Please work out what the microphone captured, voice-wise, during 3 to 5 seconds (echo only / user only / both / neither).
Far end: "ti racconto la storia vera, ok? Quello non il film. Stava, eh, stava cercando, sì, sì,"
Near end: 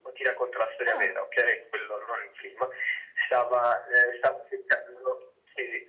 echo only